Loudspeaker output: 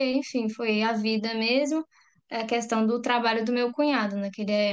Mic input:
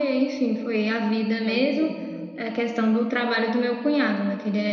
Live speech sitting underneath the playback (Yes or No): Yes